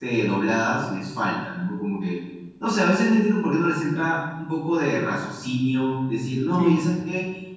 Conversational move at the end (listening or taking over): listening